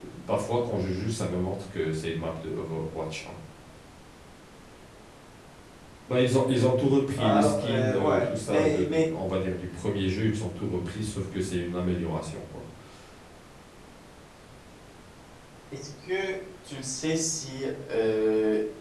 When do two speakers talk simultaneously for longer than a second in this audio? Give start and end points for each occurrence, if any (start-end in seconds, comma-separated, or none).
7.1-9.0